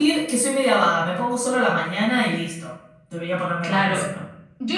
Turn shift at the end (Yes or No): Yes